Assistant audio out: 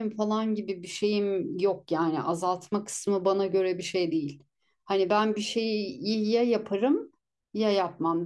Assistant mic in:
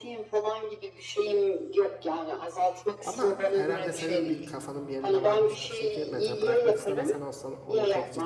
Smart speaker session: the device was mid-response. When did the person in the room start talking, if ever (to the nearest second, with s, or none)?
3 s